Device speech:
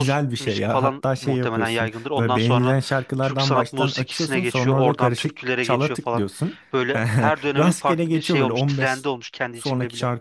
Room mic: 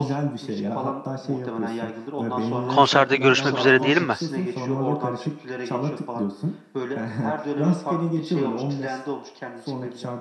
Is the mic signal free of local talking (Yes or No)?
No